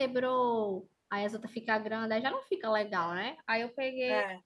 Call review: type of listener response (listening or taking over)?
listening